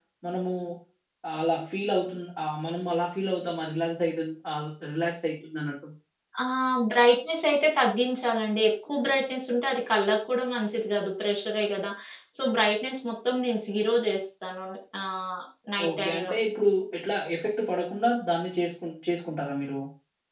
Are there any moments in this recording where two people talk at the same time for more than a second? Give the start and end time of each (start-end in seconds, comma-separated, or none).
none